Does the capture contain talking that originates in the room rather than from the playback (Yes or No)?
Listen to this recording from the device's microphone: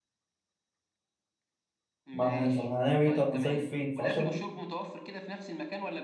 Yes